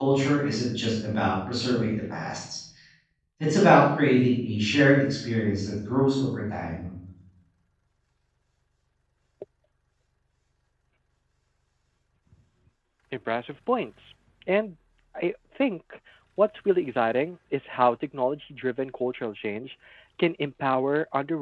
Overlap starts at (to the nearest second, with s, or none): none